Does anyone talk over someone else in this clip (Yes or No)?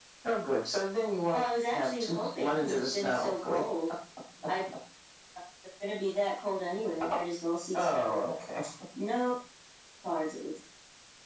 Yes